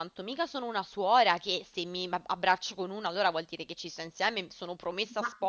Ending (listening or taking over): listening